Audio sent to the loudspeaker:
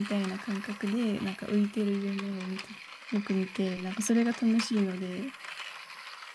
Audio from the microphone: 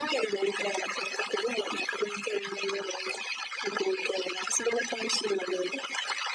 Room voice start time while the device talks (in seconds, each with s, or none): none